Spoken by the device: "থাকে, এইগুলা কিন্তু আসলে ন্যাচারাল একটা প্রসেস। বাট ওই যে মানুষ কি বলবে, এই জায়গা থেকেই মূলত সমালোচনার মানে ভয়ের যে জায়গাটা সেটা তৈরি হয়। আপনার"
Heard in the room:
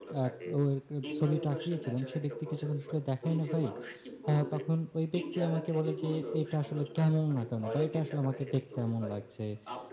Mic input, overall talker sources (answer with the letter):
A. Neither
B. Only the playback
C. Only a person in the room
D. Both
D